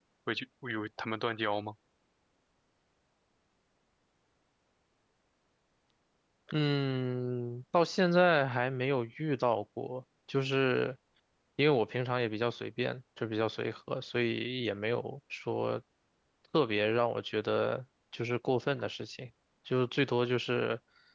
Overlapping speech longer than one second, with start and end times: none

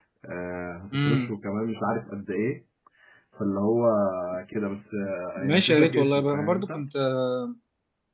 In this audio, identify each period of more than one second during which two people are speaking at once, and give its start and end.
5.4-6.8

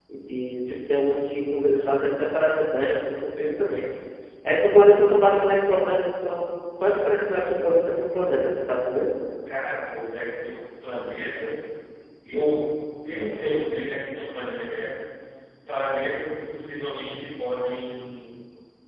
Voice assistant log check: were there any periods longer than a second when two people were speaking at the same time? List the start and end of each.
none

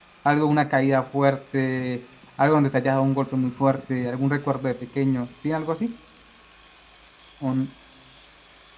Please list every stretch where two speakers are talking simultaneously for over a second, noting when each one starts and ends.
none

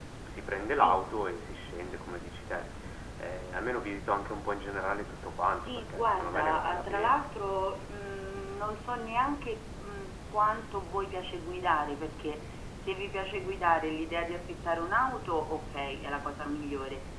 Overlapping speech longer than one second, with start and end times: 5.7-7.2

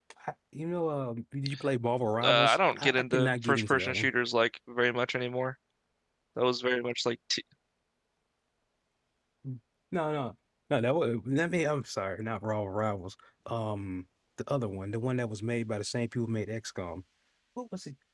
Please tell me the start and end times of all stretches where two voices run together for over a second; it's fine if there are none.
2.2-4.1

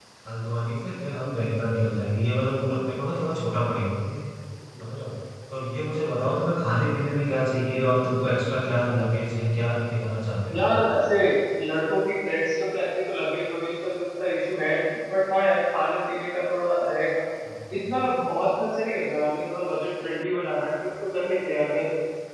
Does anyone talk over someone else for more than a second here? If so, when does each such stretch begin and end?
none

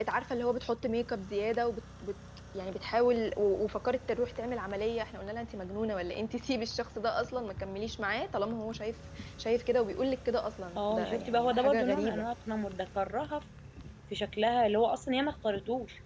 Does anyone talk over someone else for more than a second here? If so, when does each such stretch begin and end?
10.8-12.2

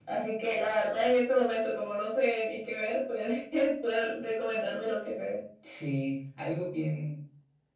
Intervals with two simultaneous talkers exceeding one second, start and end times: none

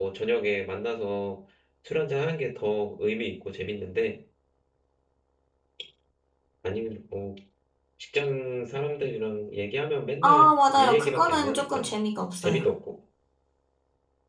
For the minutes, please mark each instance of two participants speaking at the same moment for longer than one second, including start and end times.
10.2-11.8

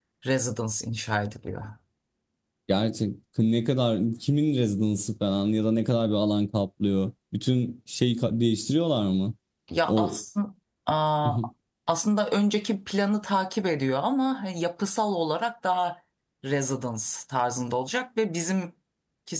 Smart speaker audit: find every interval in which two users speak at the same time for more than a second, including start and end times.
none

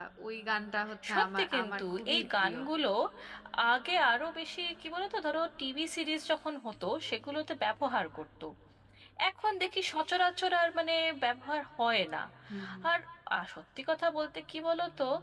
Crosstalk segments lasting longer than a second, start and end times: 1.1-2.6

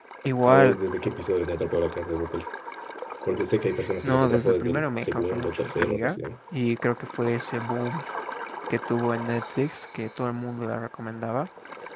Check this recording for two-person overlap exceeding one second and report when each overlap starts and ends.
4.0-6.2

